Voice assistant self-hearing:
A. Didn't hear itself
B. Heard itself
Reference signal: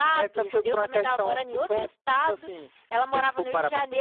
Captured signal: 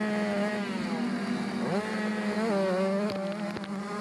A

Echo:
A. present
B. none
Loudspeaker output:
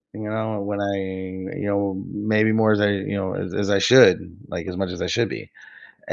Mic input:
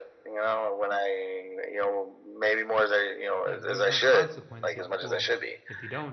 A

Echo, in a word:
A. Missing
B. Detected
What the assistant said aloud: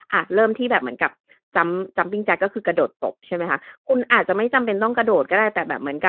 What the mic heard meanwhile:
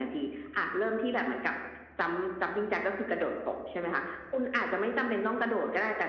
B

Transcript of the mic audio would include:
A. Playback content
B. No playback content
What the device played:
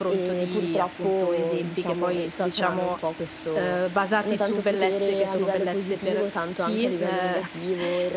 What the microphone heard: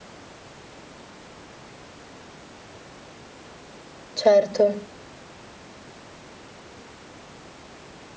B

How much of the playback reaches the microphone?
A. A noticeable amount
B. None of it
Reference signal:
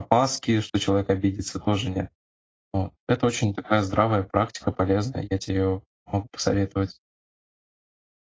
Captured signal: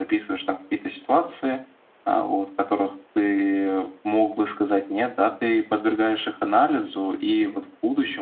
B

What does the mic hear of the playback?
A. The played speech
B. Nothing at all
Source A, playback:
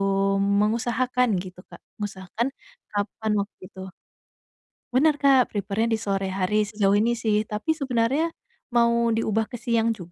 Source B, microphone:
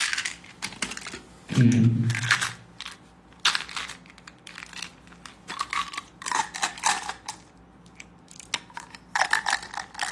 B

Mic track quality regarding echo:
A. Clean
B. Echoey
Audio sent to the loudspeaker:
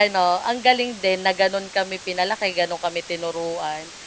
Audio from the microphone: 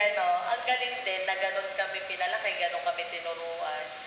B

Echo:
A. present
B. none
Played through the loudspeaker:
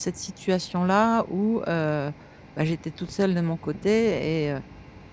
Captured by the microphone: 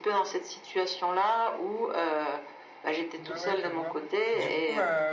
A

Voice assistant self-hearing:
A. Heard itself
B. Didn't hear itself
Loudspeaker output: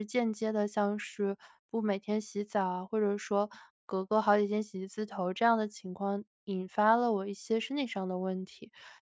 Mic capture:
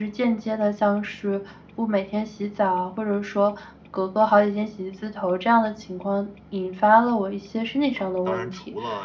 A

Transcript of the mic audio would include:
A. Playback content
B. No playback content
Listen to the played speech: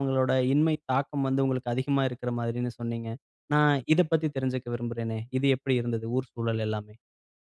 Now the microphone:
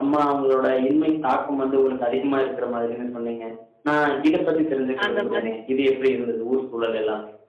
A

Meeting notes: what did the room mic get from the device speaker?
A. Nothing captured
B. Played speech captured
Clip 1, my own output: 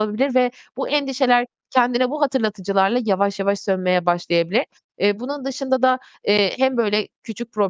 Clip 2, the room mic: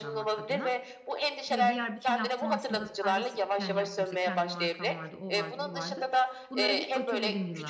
B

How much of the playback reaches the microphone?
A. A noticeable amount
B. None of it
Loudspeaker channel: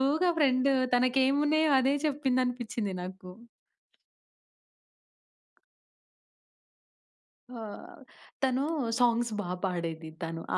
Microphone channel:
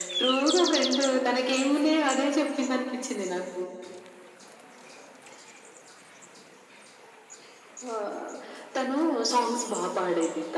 A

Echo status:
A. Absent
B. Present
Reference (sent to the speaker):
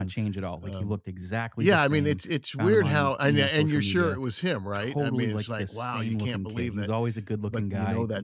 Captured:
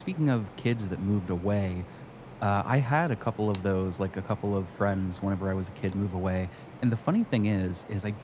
A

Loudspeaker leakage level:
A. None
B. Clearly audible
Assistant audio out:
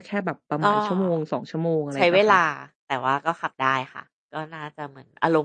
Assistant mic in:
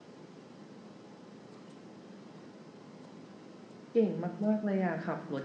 A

